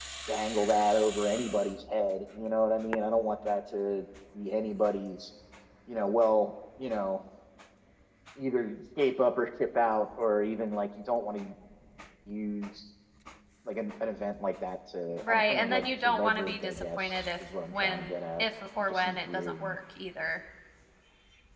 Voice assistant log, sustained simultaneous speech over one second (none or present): present